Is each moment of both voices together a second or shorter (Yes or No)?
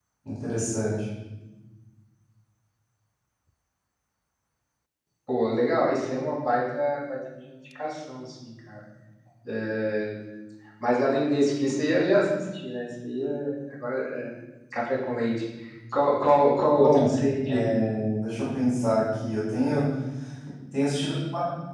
Yes